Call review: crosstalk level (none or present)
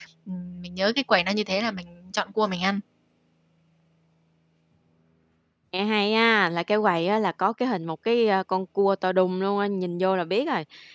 none